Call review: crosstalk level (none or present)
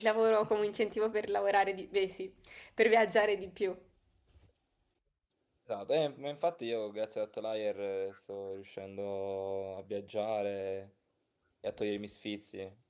none